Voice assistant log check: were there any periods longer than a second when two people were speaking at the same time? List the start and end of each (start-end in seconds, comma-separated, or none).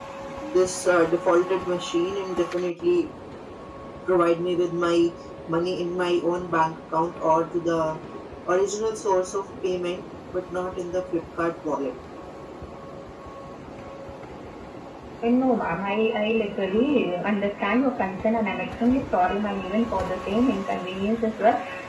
none